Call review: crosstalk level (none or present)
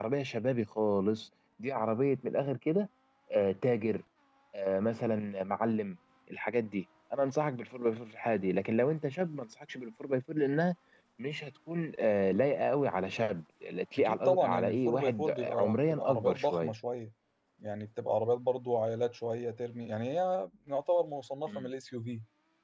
present